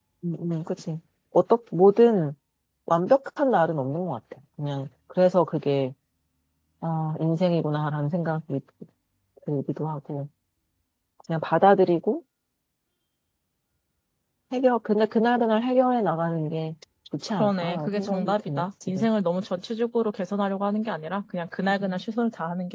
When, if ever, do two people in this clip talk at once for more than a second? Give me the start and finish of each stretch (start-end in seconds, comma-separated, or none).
17.4-19.1